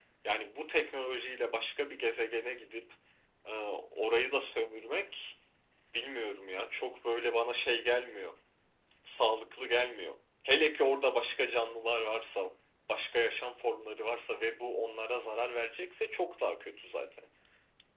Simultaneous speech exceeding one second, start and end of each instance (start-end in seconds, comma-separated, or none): none